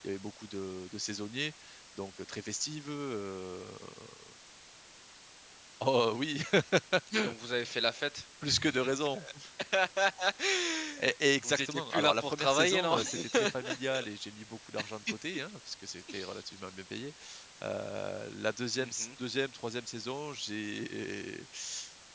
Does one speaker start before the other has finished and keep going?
Yes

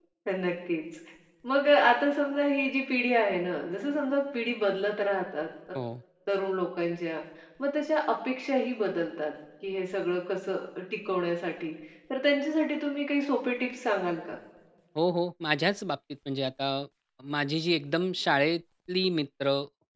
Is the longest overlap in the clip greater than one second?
No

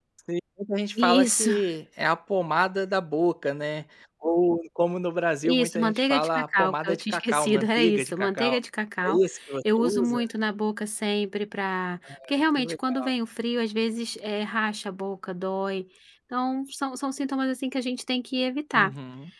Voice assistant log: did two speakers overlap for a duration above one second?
Yes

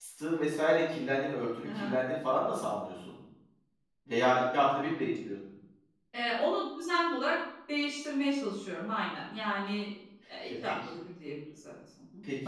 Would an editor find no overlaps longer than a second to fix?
Yes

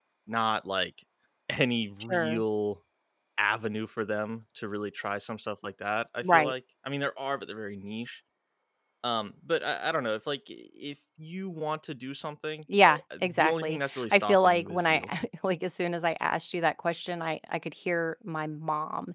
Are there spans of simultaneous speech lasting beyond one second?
Yes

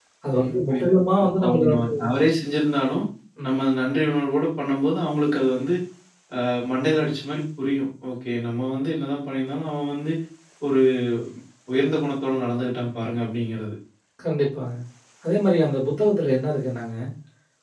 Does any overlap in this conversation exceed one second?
Yes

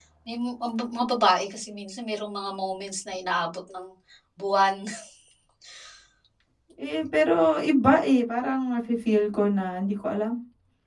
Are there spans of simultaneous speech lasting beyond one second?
No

